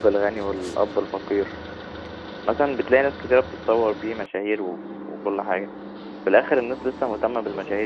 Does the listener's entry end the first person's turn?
No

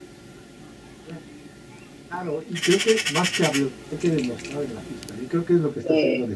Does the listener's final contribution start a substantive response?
No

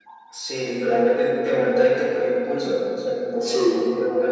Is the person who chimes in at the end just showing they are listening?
Yes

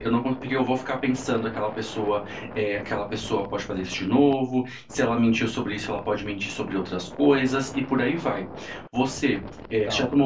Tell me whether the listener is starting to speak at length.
No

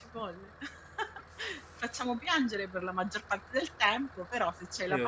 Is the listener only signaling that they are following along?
No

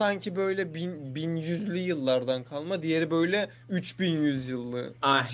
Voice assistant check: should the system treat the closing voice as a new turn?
Yes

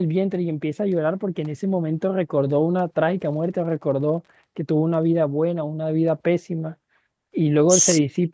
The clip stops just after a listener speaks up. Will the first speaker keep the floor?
Yes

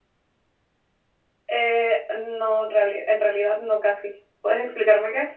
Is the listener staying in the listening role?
No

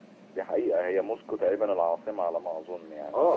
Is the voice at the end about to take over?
Yes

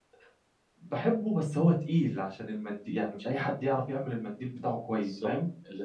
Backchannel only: No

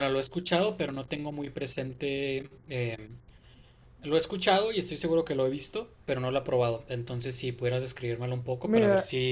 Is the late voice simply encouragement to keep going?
No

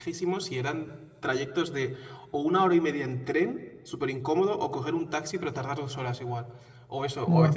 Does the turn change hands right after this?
No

